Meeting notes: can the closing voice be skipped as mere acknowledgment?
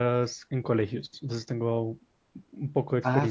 No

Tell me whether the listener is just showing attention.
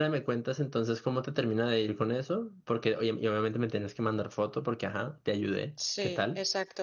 No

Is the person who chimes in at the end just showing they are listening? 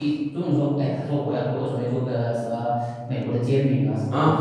Yes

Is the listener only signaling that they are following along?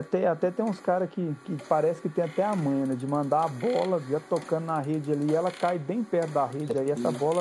Yes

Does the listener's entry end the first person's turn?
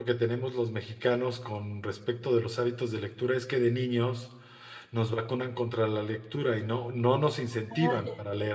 No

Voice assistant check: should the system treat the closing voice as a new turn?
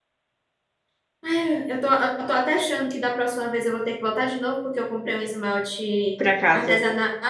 No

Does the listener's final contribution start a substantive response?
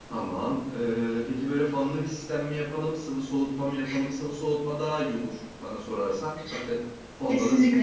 Yes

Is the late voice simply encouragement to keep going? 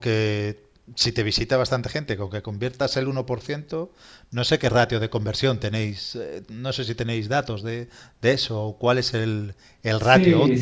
No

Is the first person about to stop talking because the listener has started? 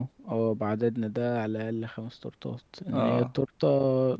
No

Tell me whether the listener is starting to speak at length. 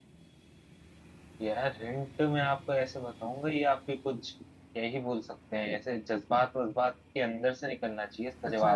Yes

